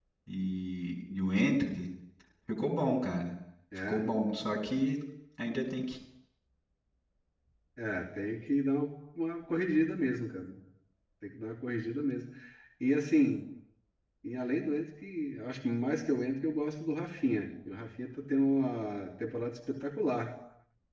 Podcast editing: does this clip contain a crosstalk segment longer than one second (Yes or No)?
No